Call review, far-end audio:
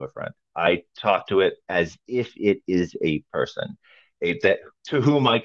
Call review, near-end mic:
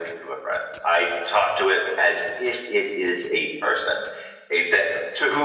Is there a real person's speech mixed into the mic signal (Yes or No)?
No